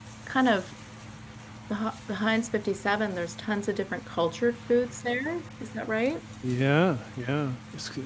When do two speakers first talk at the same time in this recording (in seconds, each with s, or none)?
none